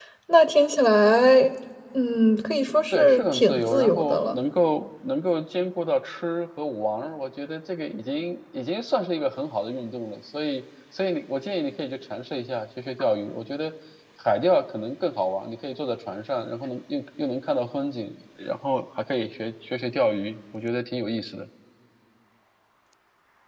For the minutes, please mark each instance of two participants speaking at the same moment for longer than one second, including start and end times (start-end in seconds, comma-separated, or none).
2.9-4.3